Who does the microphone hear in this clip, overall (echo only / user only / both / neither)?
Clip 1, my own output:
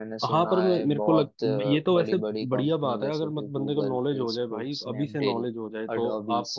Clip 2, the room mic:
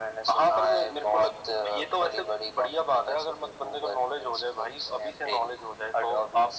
echo only